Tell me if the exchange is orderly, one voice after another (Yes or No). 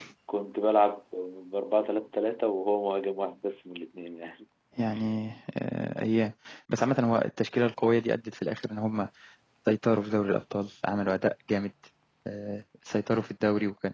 Yes